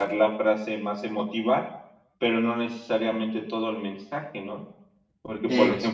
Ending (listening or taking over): listening